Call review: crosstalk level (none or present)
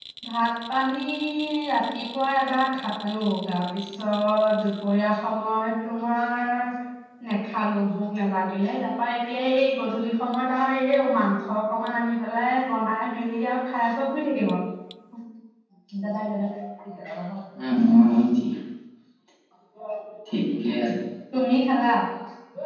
none